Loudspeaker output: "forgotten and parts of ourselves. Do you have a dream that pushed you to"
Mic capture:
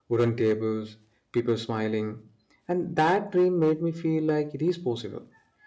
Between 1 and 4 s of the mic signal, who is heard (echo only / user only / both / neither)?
user only